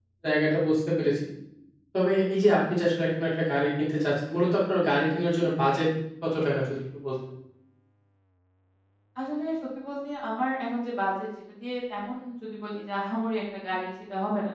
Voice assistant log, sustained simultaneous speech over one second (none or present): none